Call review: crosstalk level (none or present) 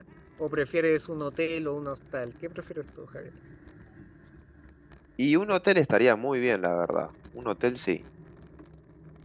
none